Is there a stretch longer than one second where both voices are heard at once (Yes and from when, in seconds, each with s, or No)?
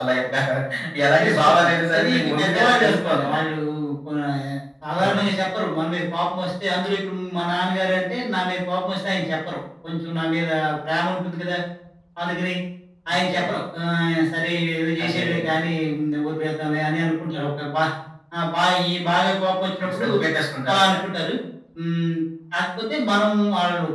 Yes, from 1.2 s